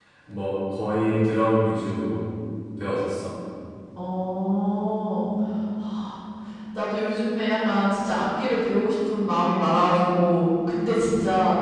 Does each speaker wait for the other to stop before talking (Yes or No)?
Yes